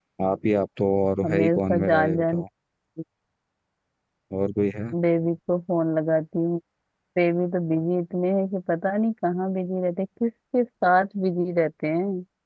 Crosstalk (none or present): present